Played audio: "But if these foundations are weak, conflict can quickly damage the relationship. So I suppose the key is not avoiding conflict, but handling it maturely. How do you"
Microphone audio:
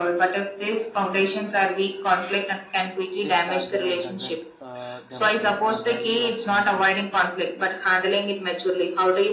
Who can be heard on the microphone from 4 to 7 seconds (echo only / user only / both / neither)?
both